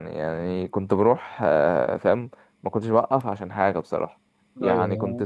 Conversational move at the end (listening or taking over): listening